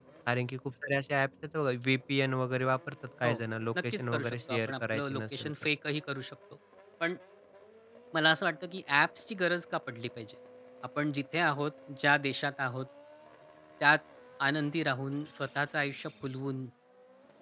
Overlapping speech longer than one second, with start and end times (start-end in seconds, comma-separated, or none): 3.9-5.5